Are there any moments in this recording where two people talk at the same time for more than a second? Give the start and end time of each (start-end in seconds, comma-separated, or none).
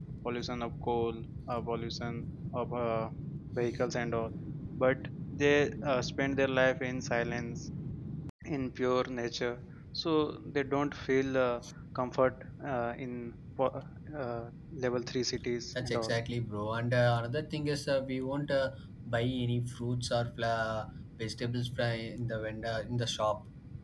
none